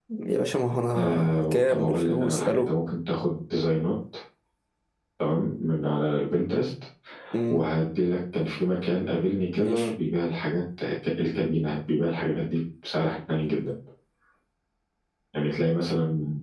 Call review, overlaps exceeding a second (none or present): present